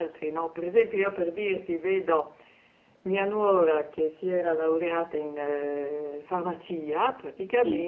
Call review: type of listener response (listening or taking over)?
listening